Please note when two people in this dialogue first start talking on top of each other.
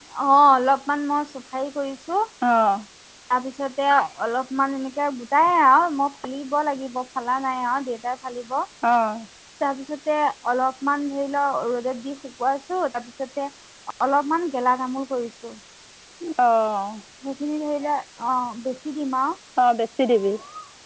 none

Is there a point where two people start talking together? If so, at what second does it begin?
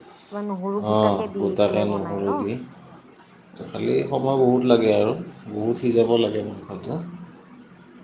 0.9 s

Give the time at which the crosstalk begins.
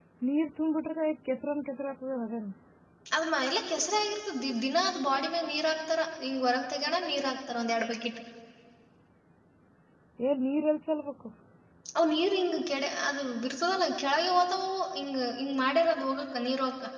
none

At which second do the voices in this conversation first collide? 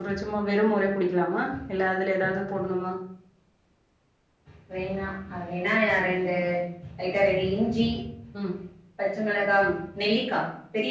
none

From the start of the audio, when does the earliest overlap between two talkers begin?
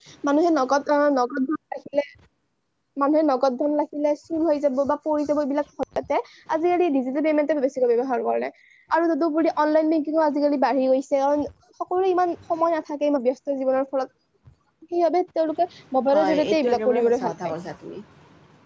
16.1 s

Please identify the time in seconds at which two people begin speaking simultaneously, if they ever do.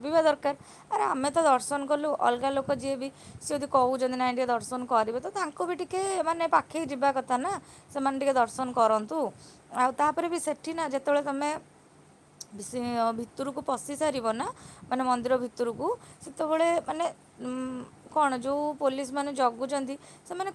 none

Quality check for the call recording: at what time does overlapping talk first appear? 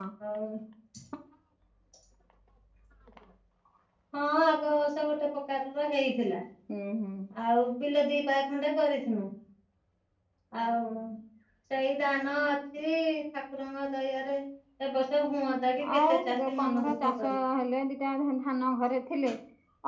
16.1 s

